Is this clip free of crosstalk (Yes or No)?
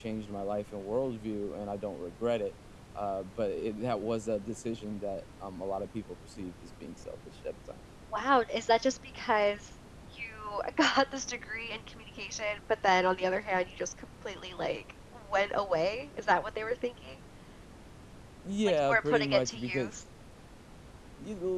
No